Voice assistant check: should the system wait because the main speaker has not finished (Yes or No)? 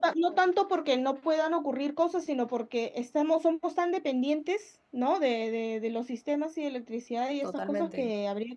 Yes